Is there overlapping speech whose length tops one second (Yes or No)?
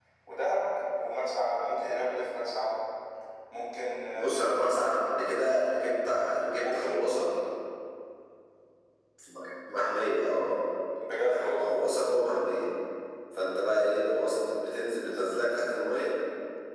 No